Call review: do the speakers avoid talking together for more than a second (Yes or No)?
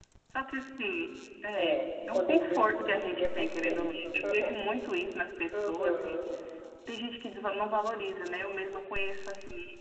No